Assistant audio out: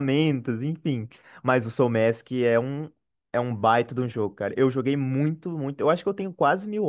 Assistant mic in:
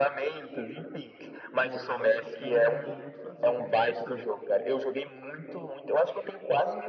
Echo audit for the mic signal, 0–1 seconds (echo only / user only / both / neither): echo only